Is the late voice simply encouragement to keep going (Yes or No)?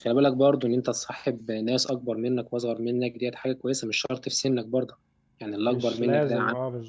No